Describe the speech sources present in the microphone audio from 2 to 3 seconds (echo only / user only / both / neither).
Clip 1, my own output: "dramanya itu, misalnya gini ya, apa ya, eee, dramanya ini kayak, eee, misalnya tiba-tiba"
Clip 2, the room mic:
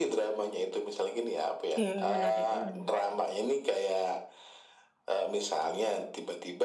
both